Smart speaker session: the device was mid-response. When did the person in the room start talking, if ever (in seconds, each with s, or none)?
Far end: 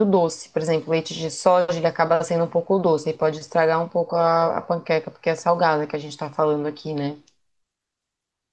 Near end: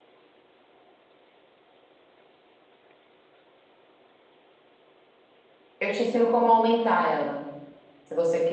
5.8 s